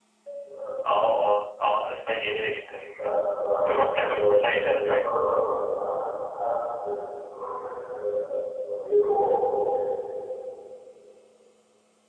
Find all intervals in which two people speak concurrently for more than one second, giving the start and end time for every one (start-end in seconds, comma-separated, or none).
3.7-5.1